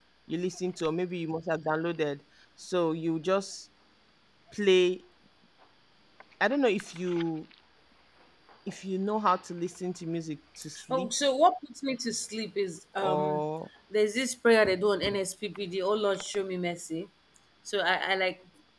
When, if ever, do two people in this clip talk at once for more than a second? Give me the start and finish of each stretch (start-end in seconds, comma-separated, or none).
none